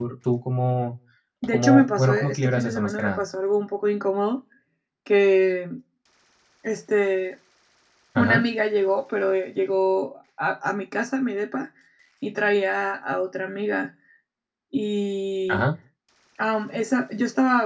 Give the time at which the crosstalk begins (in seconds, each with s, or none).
1.5 s